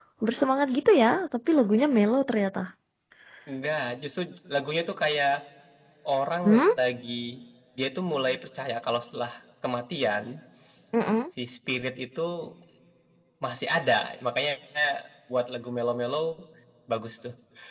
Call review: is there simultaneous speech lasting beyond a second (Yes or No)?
No